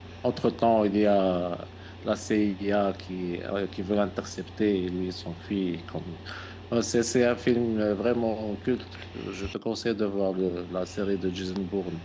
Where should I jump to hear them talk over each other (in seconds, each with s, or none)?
none